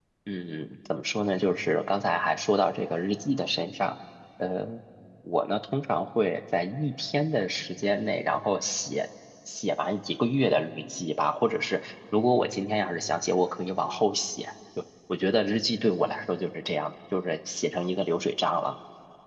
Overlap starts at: none

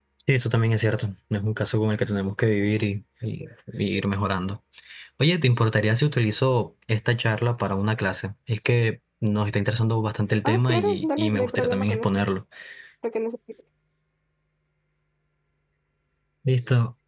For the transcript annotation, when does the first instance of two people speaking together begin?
10.4 s

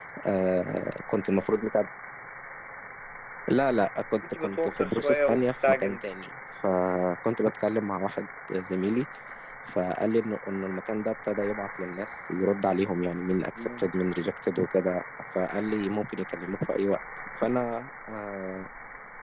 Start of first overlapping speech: 4.4 s

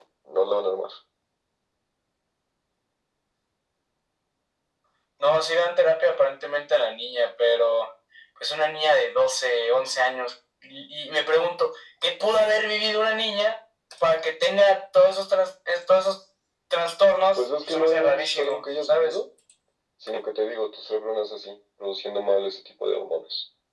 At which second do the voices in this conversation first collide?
17.4 s

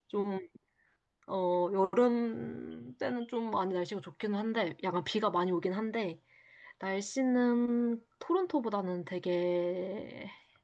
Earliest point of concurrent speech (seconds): none

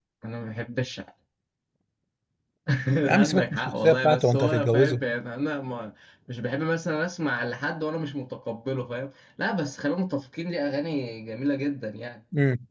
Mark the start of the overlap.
3.2 s

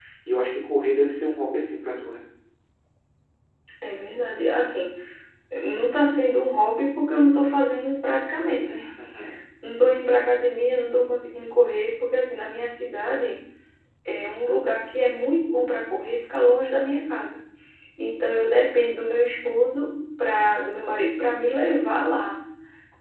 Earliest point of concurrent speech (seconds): none

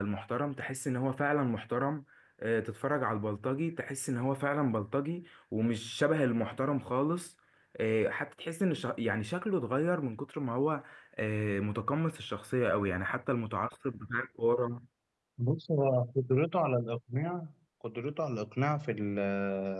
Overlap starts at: none

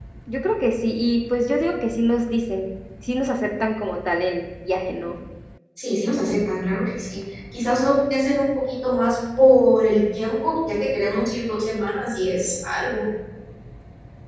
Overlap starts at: none

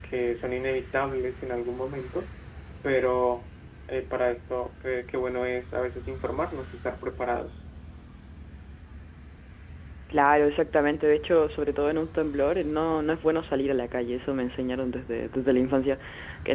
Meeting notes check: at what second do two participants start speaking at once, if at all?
none

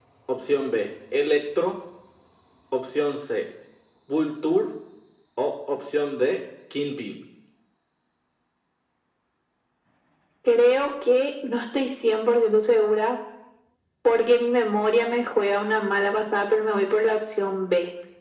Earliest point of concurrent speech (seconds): none

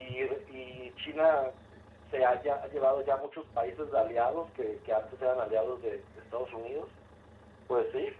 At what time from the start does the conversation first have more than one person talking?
none

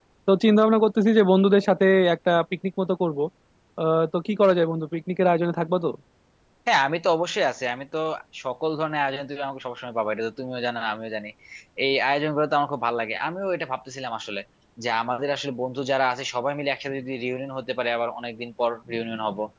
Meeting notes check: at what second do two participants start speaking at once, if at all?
none

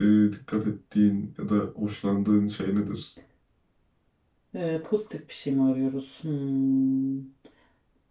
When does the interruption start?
none

